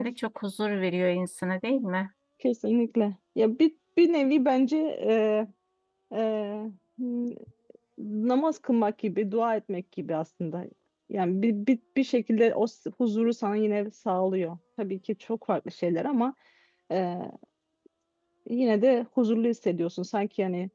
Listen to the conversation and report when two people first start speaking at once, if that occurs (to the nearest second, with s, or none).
none